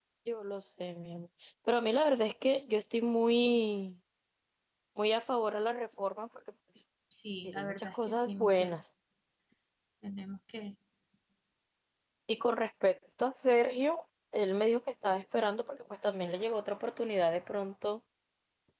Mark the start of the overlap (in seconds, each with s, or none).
7.4 s